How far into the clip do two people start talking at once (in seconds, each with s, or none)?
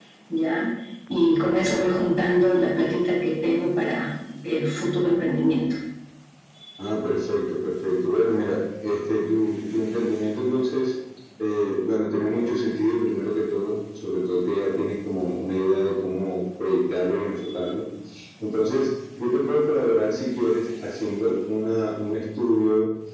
none